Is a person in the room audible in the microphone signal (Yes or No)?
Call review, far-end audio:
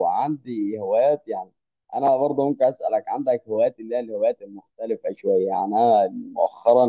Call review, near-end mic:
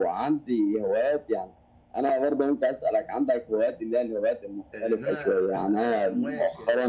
Yes